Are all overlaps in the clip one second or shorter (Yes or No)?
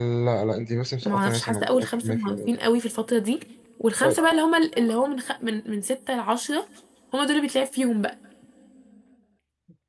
No